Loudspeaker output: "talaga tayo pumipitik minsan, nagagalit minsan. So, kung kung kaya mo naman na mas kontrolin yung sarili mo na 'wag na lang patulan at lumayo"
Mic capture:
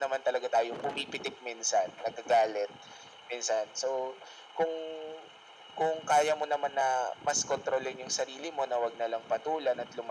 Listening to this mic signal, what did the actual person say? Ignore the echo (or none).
none